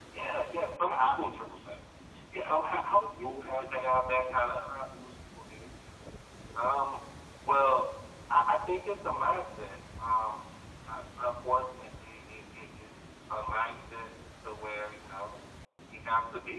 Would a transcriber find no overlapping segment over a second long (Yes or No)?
No